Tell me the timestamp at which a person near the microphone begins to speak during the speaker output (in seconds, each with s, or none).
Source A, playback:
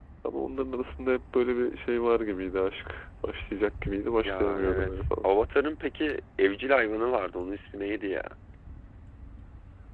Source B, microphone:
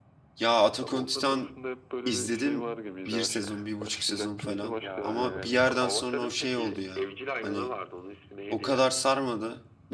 0.4 s